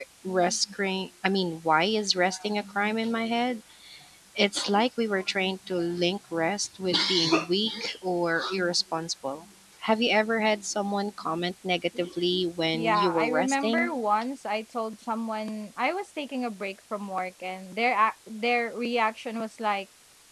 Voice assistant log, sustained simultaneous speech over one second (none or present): present